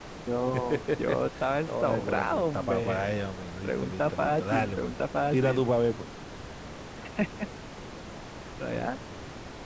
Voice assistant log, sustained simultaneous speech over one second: present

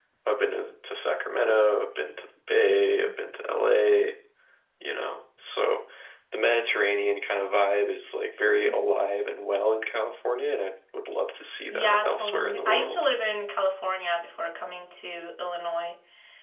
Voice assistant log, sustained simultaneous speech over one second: present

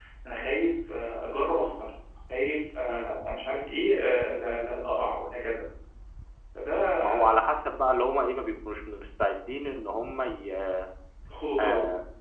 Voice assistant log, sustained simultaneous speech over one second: none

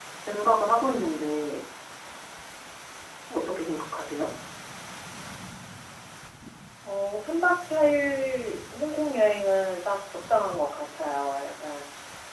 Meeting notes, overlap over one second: none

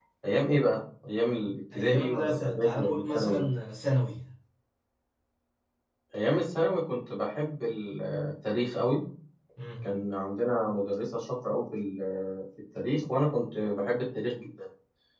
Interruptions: present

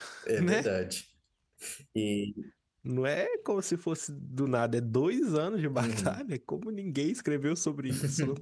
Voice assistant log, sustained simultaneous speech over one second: none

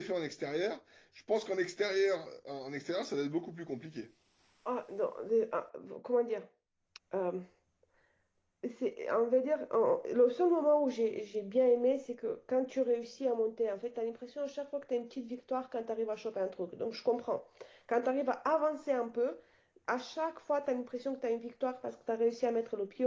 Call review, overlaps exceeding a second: none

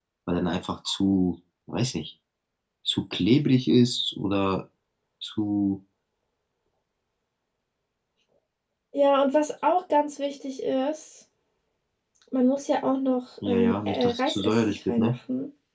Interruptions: present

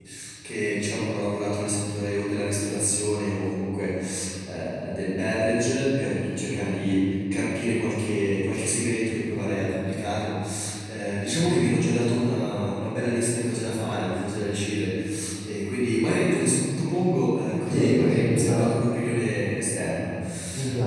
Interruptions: present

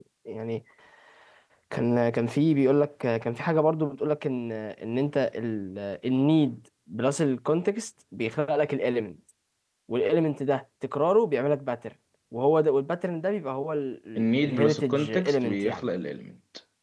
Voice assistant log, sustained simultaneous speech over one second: present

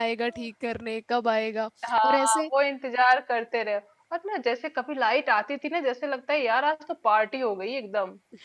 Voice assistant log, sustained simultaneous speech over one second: none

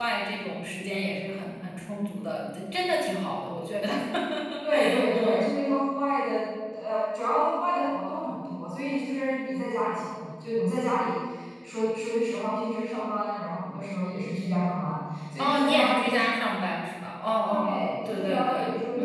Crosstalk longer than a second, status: present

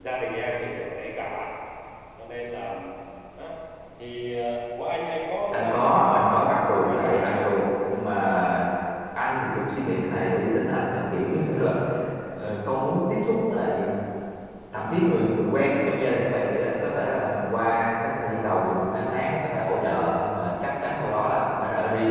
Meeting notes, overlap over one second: present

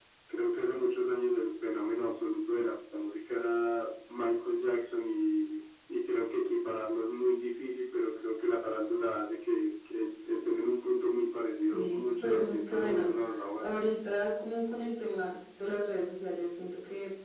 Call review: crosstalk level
present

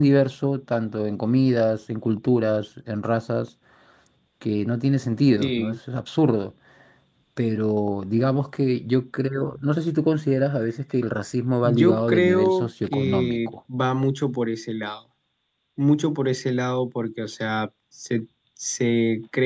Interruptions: present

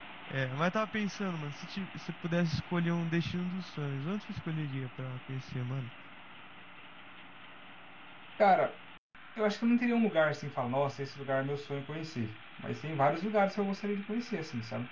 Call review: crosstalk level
none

